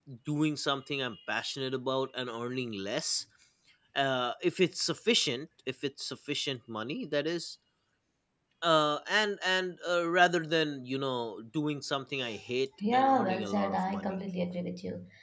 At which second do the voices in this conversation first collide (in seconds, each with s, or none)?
12.9 s